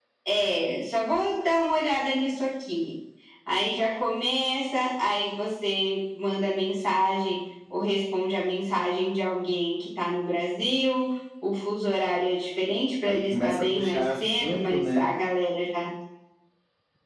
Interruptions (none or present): present